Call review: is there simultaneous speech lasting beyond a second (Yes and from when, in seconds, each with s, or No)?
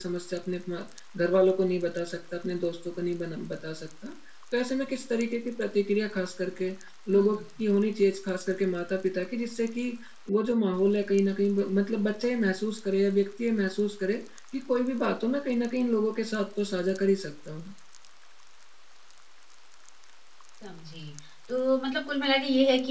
No